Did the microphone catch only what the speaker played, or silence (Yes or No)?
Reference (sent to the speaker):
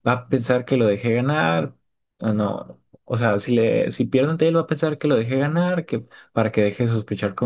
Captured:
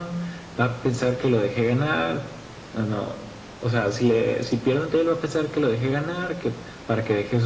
Yes